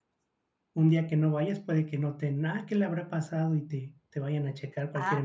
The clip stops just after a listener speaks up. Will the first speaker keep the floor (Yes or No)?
No